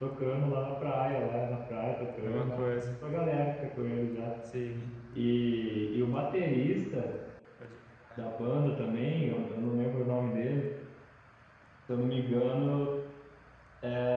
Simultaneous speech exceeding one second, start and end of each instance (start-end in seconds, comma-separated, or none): none